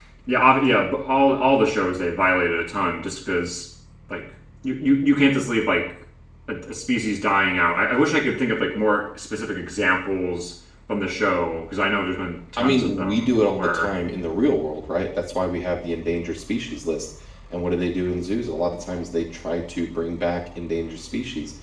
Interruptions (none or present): present